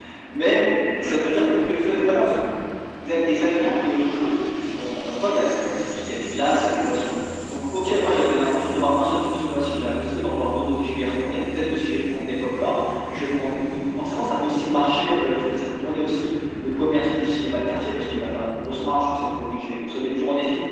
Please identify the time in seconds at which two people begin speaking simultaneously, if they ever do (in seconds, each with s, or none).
1.0 s